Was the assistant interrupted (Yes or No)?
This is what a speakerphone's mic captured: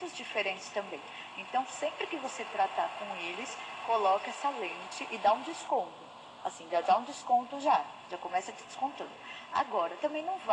No